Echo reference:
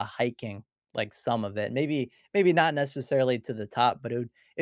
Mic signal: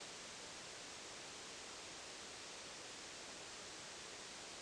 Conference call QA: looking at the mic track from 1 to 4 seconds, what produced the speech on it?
neither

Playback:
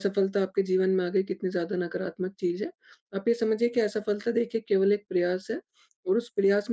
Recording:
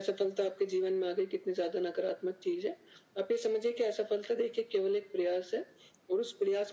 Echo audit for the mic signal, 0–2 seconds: echo only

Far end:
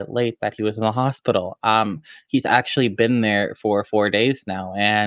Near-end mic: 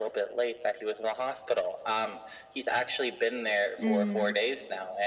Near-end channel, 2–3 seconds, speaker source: echo only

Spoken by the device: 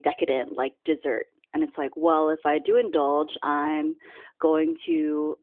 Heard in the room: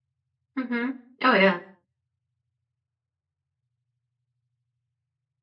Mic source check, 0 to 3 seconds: user only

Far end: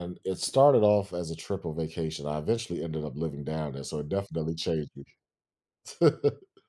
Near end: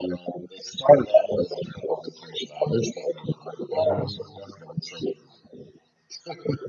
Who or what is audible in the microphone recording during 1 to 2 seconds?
echo only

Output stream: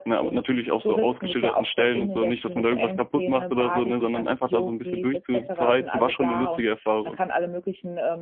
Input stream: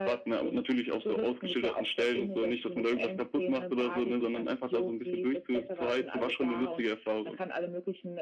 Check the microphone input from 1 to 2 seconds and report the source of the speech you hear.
echo only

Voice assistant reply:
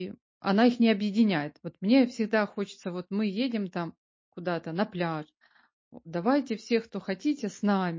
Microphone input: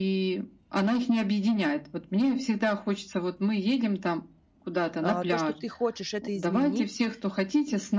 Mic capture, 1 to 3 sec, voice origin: echo only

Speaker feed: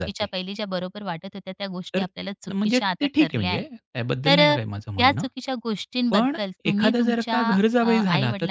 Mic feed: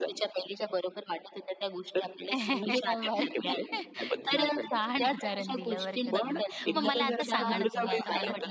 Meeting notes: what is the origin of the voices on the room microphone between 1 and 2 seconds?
echo only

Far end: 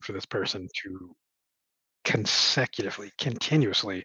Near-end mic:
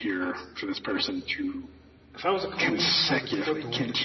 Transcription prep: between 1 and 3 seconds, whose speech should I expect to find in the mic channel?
both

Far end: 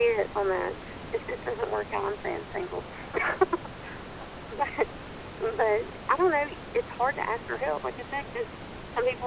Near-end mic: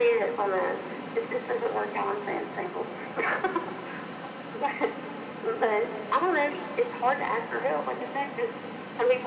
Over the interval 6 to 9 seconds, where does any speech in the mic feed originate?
echo only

